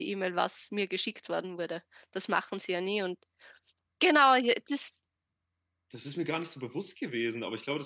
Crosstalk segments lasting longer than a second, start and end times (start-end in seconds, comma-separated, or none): none